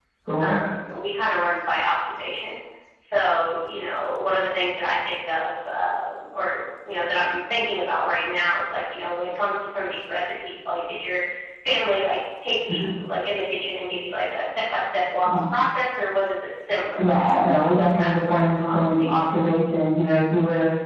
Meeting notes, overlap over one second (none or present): present